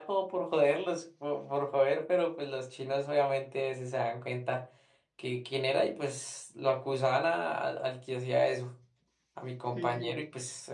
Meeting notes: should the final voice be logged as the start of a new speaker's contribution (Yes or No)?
No